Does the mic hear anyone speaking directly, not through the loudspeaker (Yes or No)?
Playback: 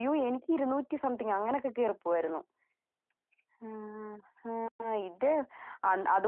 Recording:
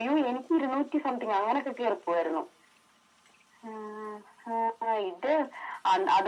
No